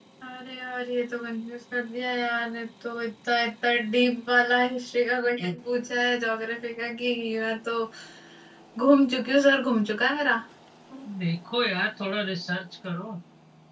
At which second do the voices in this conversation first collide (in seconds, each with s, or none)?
none